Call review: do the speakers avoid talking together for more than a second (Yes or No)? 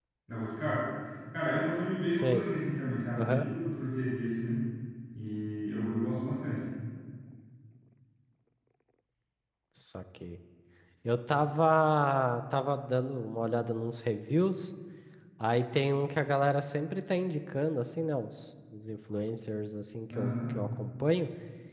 Yes